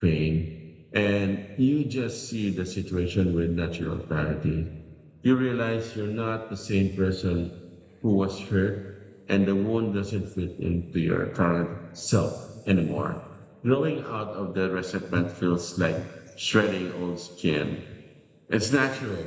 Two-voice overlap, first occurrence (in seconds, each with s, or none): none